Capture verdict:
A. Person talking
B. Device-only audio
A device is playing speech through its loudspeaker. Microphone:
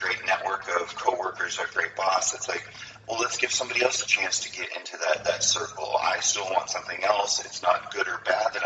B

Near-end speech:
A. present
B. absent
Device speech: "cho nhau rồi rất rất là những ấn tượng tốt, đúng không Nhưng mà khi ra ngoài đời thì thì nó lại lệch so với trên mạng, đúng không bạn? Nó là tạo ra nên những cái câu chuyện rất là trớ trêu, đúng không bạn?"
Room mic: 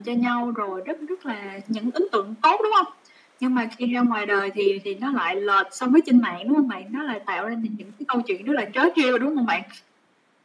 B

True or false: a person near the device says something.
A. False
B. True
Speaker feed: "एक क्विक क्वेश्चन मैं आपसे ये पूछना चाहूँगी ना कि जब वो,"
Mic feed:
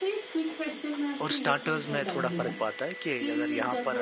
B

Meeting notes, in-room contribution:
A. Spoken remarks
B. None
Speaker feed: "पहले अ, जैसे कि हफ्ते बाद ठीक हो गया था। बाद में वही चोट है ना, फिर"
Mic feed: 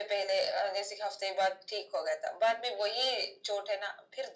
B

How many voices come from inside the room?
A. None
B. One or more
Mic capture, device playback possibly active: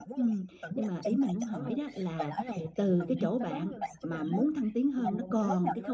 B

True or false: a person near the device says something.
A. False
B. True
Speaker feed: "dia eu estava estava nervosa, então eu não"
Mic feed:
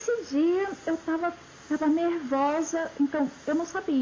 A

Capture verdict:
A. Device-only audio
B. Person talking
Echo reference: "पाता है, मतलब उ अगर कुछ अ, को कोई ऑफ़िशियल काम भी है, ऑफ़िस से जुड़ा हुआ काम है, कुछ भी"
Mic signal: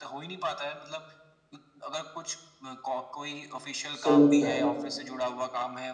B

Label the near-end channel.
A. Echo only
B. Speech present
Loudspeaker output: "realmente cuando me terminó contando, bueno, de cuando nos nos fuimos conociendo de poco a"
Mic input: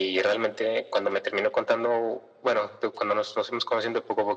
A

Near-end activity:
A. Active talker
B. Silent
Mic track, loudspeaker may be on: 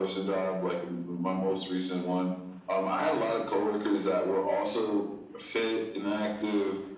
B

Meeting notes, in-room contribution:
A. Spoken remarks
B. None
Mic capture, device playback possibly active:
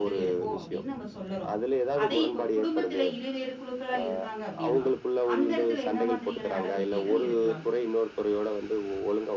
A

